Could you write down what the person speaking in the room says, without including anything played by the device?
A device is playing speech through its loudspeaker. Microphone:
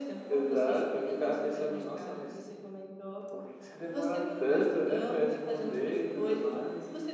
none

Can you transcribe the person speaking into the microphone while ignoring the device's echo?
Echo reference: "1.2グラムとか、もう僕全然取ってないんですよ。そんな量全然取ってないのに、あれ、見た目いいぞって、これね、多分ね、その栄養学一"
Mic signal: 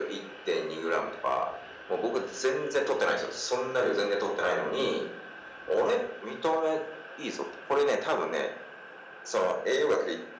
none

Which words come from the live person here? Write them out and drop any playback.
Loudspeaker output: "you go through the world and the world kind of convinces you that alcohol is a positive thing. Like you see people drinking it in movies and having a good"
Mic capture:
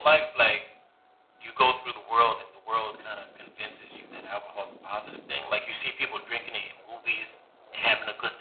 none

